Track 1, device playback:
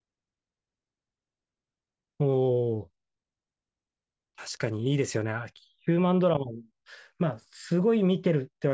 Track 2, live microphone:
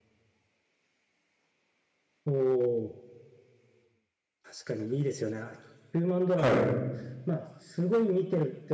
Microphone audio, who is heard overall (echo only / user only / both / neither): both